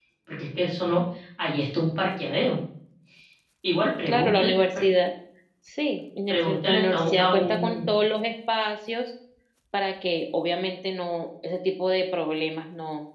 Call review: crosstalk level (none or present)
present